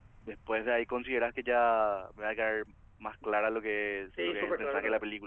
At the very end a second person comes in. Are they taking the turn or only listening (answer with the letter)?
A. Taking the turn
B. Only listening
A